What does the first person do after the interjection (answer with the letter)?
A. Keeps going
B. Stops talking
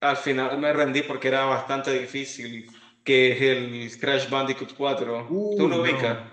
B